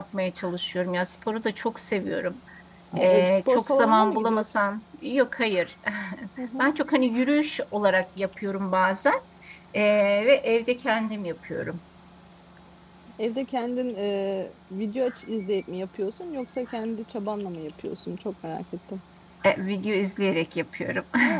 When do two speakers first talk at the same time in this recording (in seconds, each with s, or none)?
3.0 s